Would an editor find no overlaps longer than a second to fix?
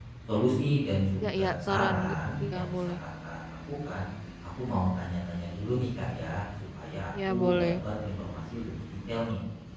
No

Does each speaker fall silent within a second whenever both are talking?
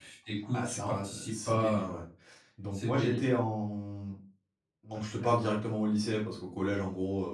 No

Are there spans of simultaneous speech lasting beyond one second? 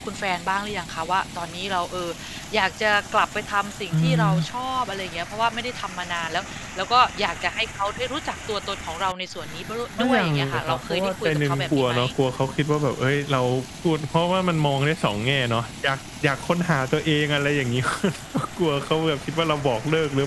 Yes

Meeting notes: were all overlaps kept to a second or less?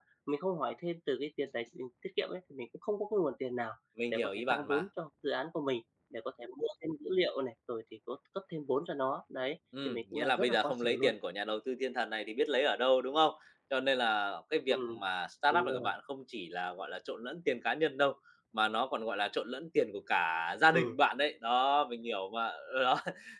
No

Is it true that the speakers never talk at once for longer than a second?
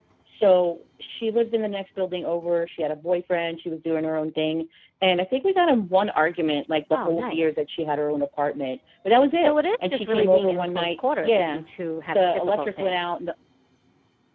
No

